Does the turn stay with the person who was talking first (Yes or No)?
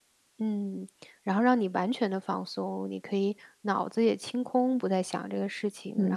No